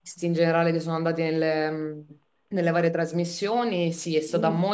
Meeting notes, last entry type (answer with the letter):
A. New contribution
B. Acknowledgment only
B